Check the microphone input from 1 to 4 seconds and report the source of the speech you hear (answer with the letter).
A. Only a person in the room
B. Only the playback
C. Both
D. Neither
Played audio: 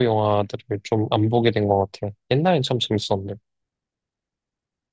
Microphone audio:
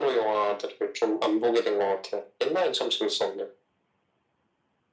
B